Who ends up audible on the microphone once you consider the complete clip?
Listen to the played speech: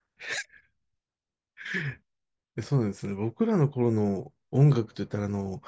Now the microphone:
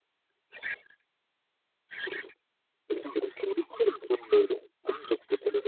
echo only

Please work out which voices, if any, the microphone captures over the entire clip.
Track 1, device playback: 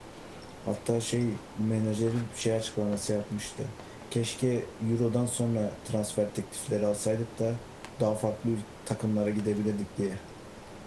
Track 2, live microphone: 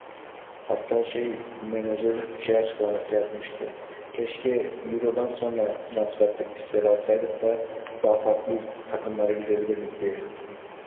echo only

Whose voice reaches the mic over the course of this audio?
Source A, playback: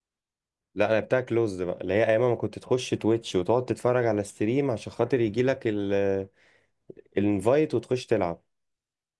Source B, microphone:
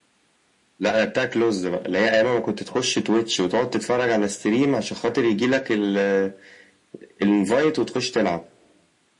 echo only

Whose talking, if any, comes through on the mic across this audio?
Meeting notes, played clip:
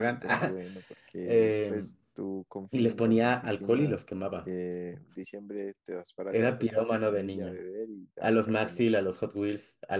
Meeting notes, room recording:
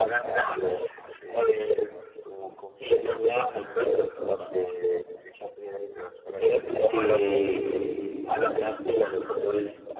both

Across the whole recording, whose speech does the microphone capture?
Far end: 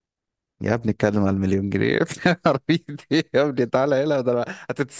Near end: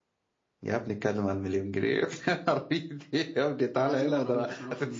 both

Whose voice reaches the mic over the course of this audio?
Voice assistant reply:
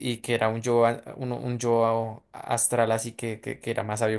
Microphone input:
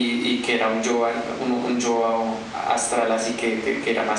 echo only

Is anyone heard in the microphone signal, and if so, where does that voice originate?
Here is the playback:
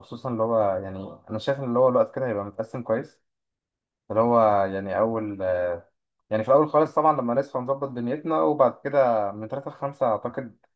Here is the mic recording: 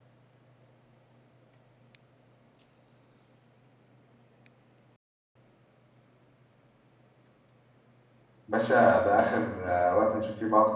user only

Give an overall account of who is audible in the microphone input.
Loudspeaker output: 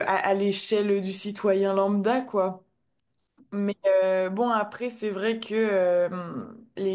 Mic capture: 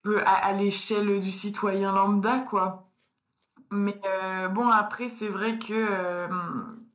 echo only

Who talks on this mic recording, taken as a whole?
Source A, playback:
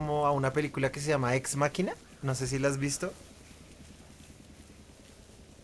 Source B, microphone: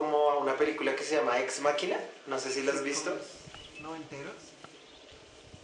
both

